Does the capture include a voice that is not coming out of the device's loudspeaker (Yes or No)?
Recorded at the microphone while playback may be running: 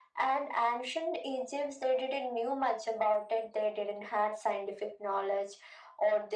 No